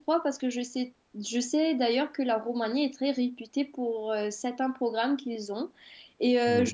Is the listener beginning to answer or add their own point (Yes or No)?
No